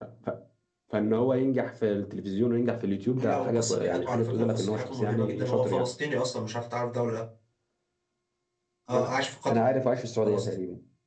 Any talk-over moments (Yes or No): Yes